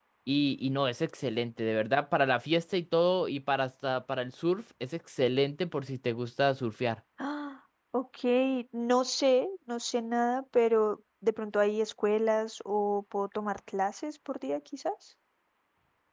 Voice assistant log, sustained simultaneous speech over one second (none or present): none